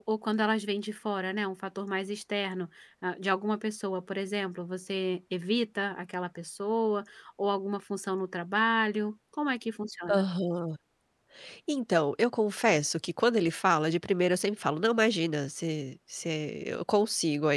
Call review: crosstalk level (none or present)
none